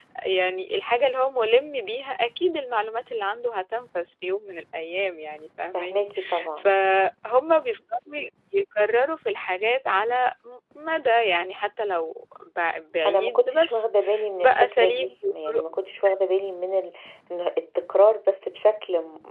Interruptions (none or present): present